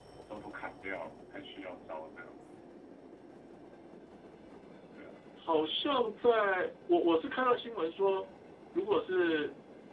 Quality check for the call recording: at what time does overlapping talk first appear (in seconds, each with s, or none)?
none